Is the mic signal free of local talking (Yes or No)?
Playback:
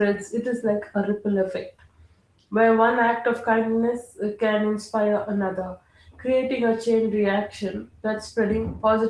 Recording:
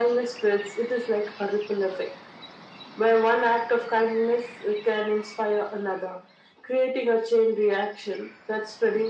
Yes